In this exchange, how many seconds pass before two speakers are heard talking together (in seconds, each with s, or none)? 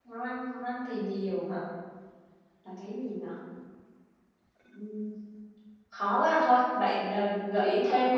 none